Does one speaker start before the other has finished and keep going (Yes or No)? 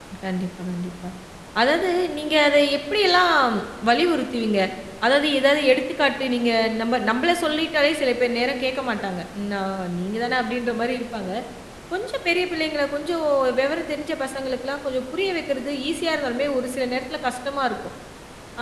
No